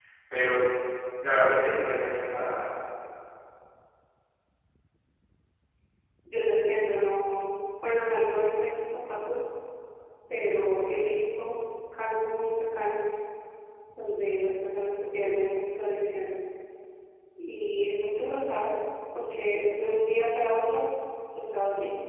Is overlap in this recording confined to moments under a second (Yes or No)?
Yes